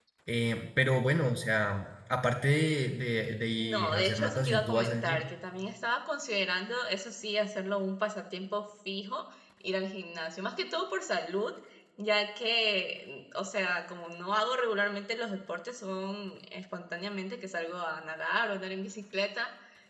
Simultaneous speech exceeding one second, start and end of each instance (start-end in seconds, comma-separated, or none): 3.6-5.2